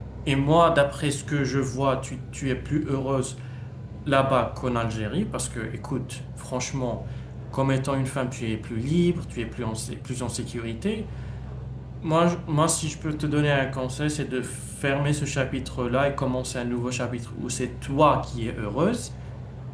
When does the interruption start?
none

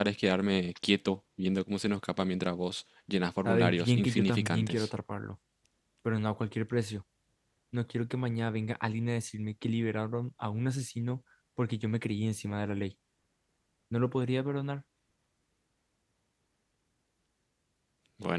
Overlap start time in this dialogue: 3.5 s

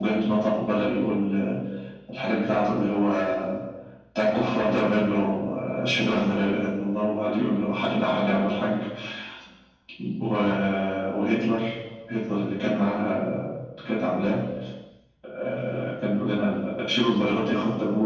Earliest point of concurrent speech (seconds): none

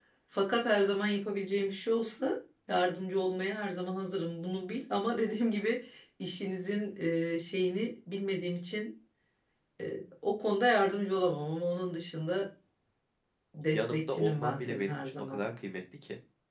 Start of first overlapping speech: 13.7 s

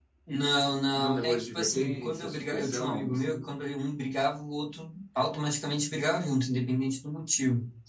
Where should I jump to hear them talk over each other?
1.0 s

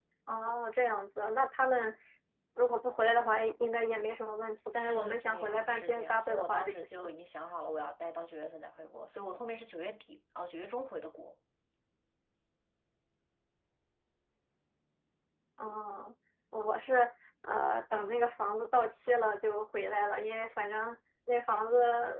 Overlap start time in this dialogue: 4.7 s

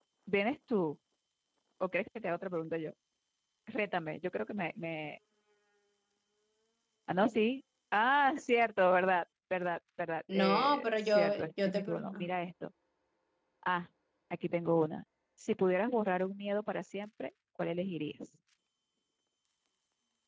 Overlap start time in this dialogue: 10.3 s

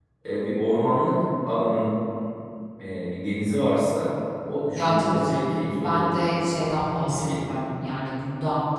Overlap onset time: 4.8 s

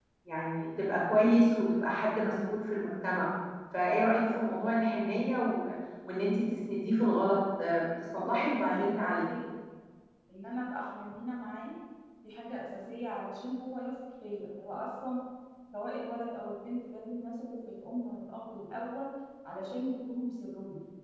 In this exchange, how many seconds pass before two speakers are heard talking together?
8.2 s

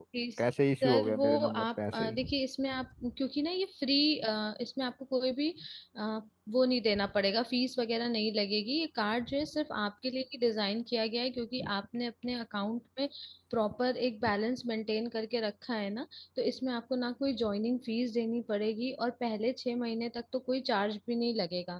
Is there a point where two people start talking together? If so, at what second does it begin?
0.8 s

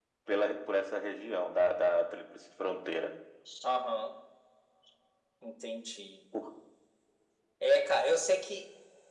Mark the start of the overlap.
none

